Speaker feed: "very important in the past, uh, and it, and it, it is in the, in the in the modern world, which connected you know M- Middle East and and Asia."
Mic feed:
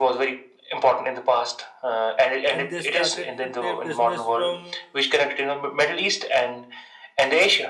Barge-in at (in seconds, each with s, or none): 2.5 s